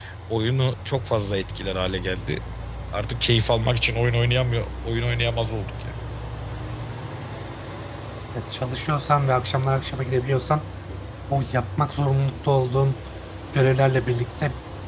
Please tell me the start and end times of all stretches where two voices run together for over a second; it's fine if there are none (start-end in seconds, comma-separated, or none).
none